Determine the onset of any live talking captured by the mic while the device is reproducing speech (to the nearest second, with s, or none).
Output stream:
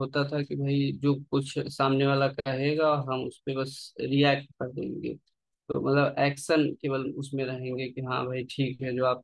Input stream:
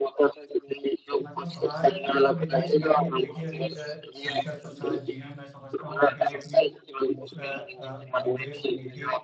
1 s